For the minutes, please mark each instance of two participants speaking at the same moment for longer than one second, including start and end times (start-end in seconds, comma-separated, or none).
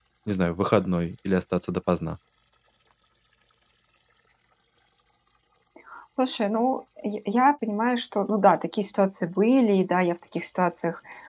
none